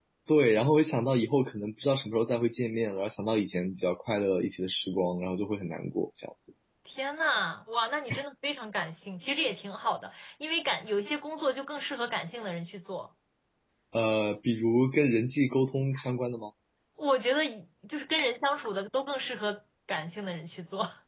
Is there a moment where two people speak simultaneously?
No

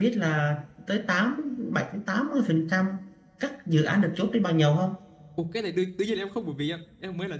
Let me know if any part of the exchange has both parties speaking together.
No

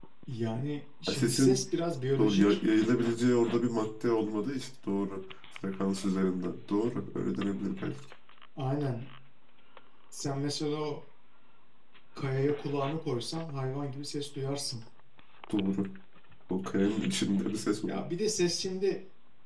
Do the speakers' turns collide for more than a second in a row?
No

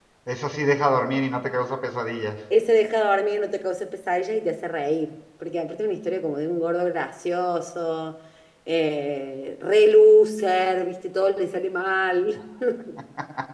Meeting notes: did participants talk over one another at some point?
No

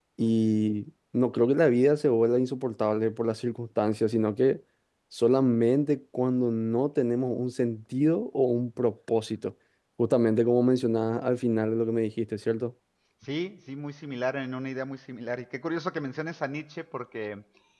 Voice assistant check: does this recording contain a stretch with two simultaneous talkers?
No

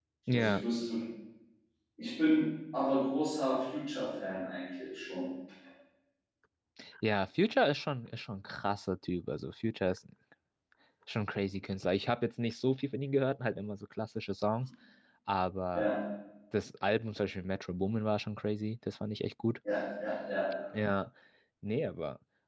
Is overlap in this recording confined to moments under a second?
Yes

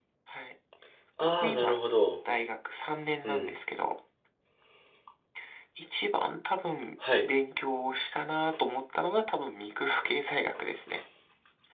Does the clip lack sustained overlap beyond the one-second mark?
Yes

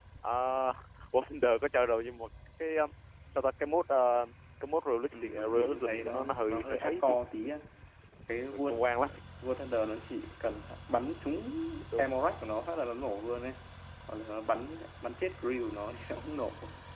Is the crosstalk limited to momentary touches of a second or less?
No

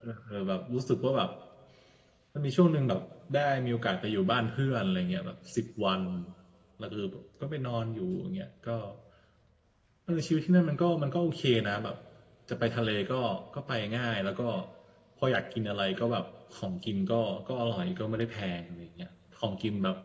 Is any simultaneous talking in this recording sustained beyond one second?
No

